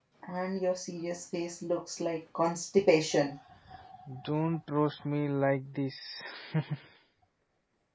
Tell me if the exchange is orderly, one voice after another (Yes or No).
Yes